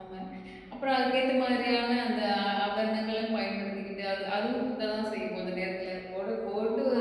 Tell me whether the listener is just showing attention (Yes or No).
Yes